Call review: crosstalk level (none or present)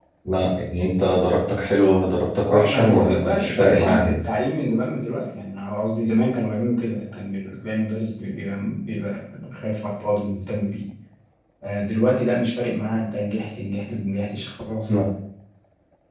present